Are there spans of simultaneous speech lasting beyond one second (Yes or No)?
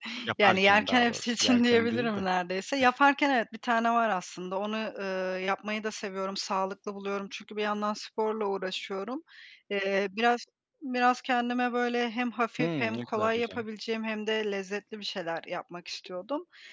Yes